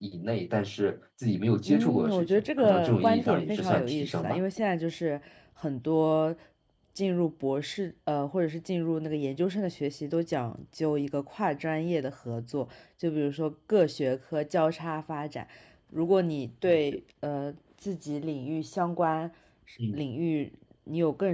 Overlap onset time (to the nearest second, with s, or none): 2 s